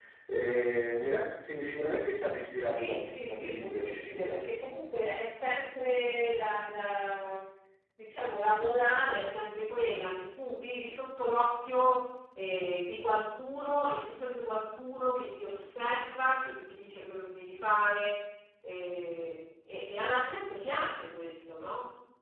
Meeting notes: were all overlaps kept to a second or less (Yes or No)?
No